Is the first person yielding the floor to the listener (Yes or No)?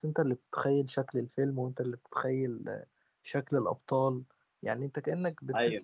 No